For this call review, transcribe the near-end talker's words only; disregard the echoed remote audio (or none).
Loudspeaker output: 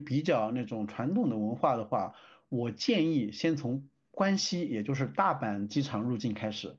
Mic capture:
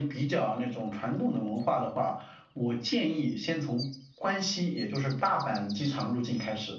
none